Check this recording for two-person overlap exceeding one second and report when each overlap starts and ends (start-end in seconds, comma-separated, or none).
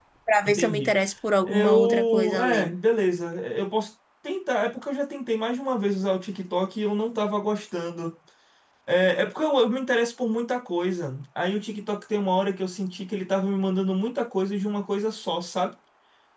1.4-2.7